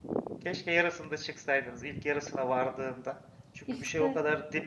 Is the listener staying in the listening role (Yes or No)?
Yes